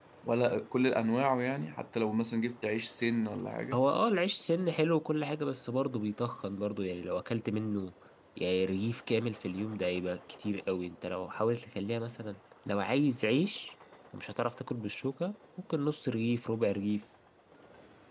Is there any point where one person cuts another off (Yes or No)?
No